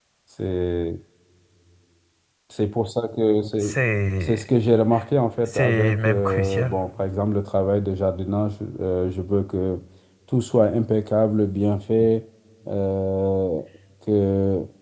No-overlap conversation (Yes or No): No